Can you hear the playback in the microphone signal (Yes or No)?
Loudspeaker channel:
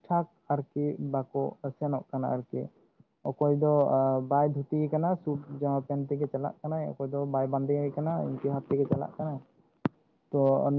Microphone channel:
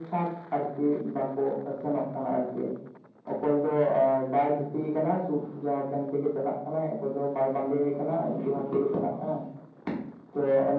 Yes